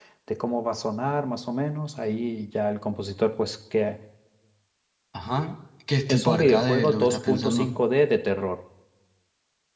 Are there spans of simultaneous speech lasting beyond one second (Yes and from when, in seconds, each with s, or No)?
Yes, from 6.1 s